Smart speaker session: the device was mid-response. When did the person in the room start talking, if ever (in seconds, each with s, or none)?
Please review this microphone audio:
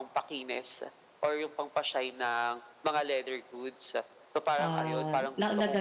4.6 s